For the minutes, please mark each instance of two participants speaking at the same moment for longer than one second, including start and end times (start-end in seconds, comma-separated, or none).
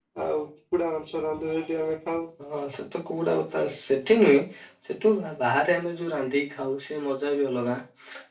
none